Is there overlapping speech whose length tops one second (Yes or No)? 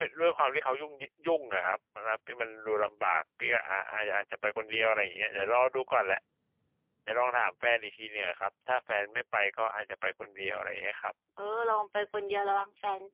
No